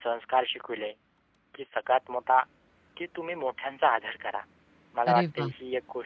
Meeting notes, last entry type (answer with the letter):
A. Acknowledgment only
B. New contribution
A